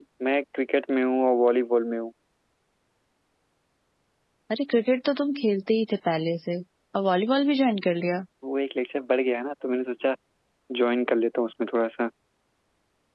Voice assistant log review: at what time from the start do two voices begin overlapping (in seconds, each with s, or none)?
none